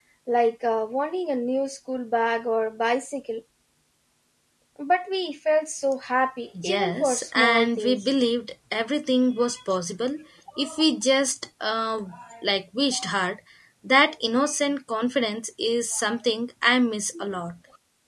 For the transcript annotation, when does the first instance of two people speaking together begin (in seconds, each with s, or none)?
6.5 s